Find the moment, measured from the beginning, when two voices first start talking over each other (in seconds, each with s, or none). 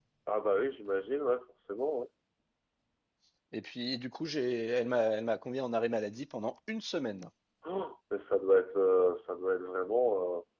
none